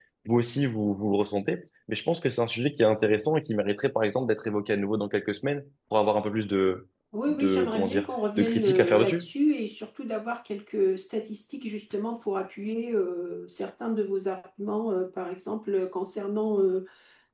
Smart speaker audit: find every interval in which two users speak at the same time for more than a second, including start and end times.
7.3-9.2

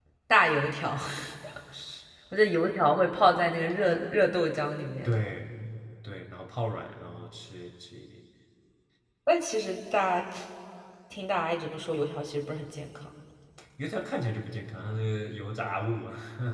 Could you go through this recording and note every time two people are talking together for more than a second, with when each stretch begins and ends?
none

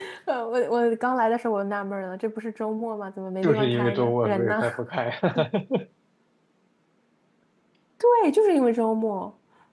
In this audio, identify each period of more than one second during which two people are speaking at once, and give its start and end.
3.4-4.6

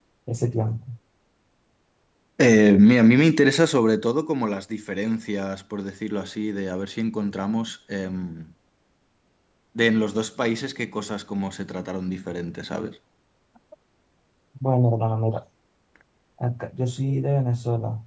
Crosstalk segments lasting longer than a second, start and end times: none

